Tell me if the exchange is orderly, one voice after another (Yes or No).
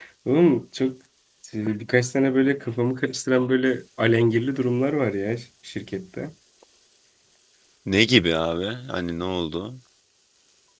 Yes